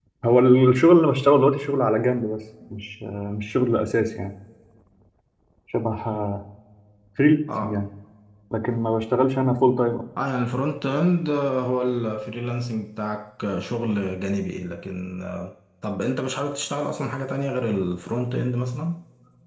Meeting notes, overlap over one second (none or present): none